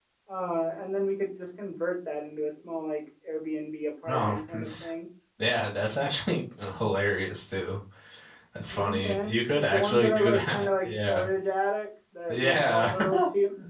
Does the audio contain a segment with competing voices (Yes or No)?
Yes